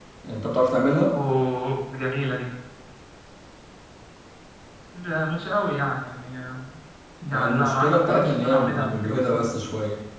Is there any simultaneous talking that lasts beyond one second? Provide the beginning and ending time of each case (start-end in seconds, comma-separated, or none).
7.3-9.4